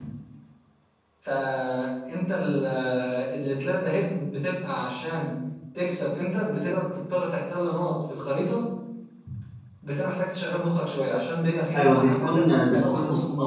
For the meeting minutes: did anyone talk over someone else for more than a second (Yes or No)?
Yes